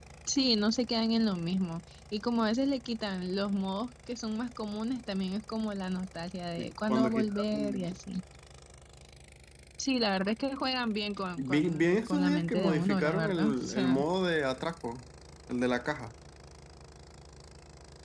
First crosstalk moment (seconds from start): 6.6 s

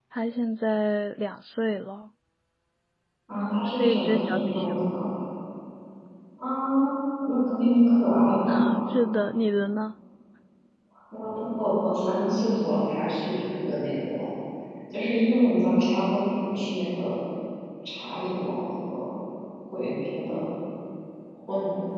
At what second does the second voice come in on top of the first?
3.3 s

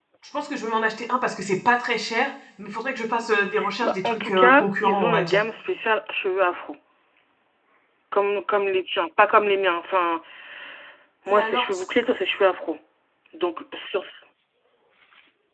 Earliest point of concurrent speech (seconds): 3.8 s

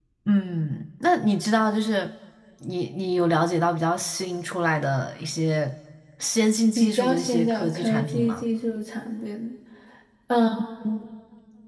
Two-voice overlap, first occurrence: 6.8 s

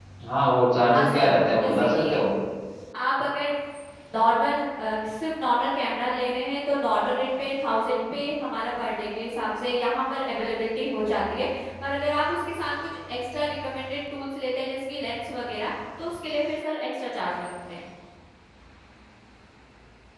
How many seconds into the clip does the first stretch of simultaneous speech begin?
0.8 s

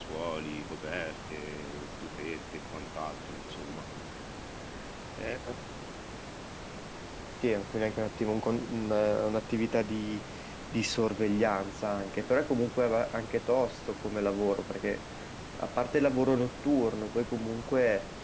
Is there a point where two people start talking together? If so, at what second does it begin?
none

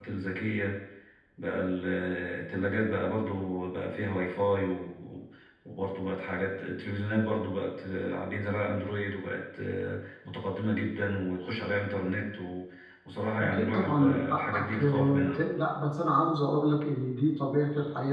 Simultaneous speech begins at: 13.4 s

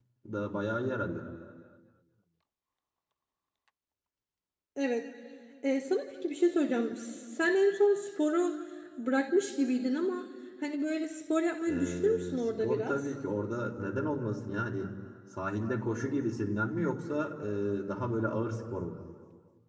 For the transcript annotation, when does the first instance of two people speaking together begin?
11.7 s

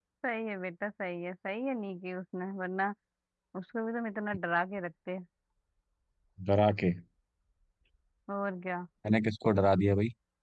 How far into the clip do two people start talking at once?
none

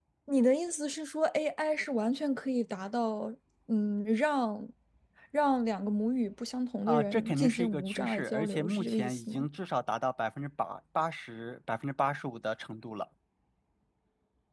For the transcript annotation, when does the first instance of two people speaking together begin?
6.9 s

